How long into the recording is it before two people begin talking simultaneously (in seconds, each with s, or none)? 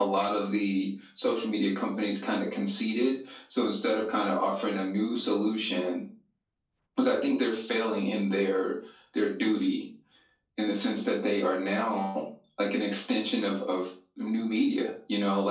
none